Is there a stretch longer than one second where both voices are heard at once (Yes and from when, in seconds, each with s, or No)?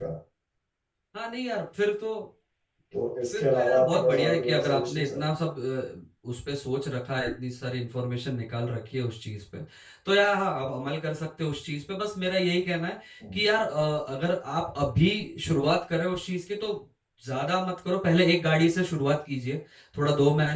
Yes, from 3.3 s